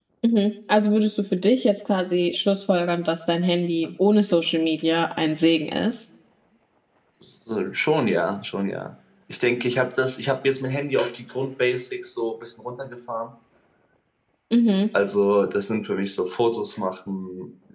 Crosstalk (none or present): none